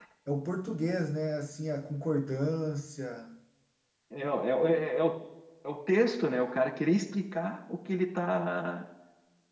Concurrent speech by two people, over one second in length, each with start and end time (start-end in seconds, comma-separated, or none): none